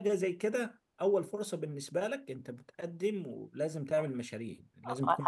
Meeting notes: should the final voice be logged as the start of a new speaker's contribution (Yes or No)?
Yes